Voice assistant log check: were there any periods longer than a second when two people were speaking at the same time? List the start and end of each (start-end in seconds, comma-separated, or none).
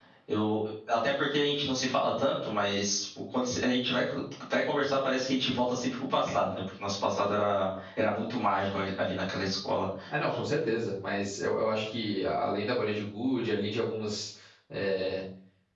none